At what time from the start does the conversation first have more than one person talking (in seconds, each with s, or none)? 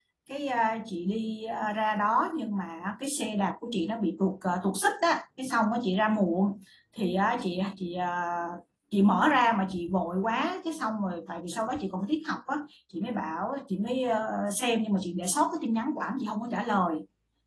none